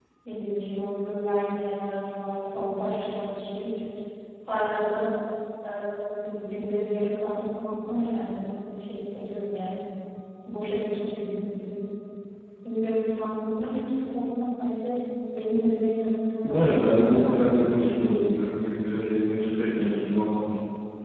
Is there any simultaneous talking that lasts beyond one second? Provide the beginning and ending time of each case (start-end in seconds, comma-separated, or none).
16.4-17.9